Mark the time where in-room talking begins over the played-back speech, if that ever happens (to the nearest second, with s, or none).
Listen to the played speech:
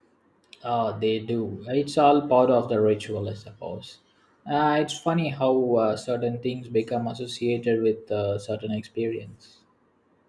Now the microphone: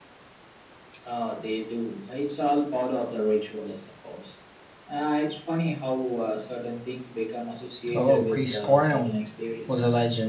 8 s